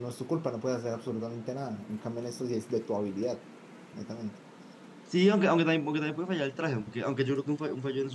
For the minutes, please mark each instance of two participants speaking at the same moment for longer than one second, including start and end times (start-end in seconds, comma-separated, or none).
none